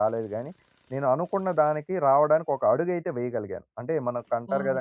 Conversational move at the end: listening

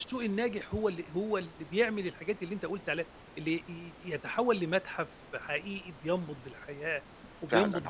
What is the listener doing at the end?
taking over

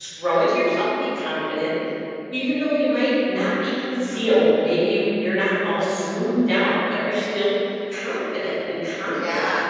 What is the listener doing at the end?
taking over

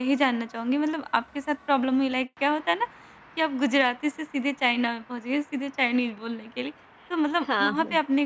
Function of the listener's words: listening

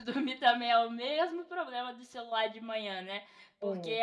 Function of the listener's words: listening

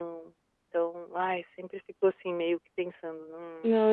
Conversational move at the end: taking over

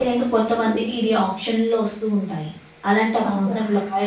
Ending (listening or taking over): listening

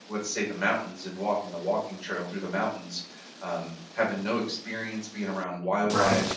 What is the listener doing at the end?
listening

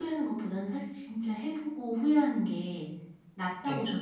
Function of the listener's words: listening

